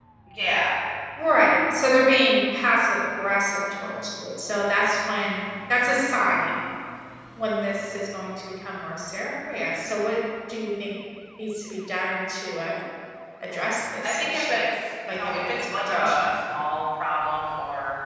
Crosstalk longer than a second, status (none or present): present